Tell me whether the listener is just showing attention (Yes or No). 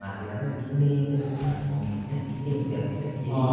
No